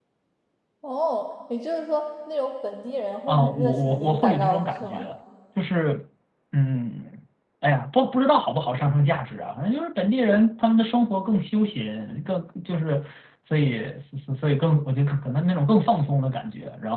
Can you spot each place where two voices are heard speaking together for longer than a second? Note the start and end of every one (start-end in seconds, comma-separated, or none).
3.3-5.0